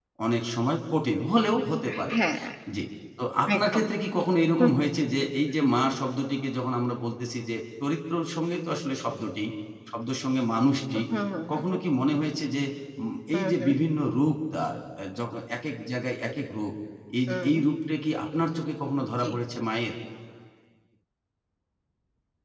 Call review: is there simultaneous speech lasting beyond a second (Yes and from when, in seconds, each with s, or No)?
No